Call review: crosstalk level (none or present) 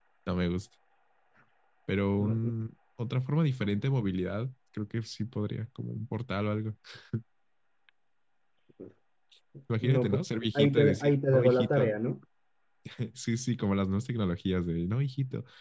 present